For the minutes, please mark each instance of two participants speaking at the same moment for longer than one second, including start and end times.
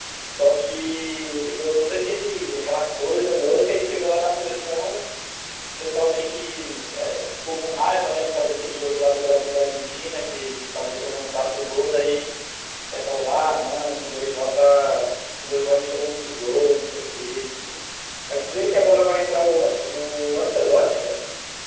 none

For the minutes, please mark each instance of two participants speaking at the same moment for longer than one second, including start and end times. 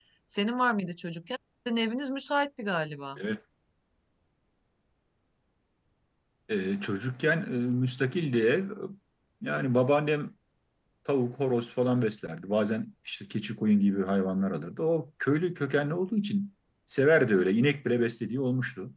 none

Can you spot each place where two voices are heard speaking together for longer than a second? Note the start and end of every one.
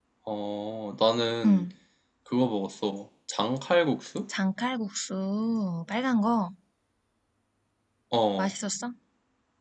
none

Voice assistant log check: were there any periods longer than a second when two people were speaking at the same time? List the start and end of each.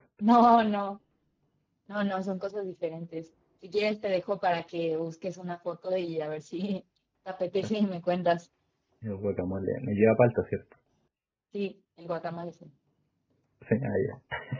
none

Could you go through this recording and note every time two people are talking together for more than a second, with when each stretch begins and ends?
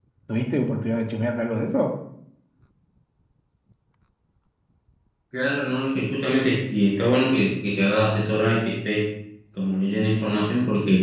none

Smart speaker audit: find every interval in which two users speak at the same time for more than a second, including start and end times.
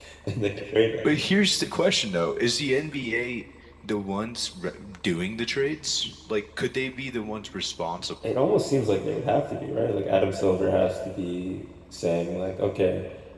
none

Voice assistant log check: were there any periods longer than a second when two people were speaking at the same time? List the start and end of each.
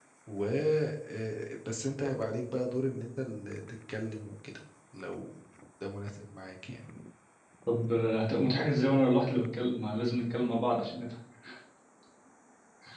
none

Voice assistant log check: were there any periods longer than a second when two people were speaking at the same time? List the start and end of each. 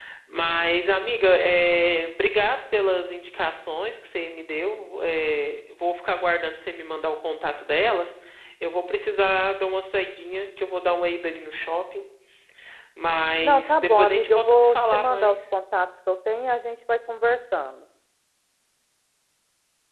13.4-15.4

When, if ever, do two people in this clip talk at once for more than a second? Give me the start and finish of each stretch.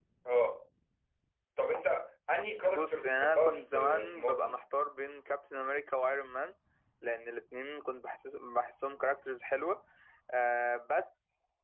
2.7-4.6

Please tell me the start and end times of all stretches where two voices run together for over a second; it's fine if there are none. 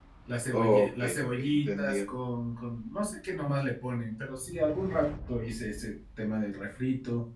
0.5-2.0

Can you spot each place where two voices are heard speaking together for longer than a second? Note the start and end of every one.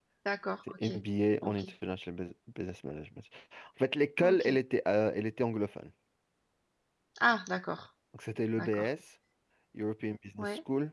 none

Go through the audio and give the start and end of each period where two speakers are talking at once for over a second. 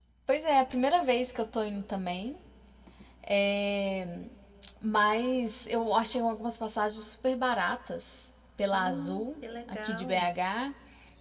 8.7-10.3

